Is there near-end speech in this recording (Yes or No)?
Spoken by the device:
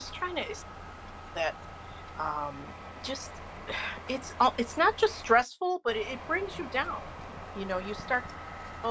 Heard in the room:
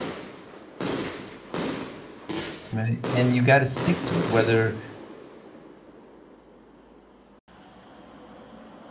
Yes